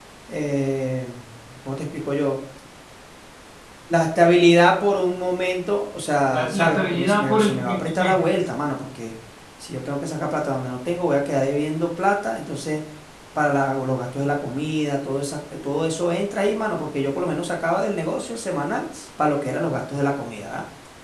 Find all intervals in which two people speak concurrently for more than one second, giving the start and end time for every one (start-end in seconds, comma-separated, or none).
6.3-8.2